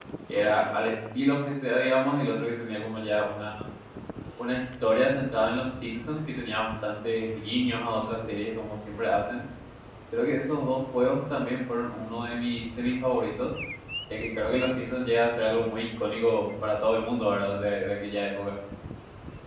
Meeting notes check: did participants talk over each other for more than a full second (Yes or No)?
No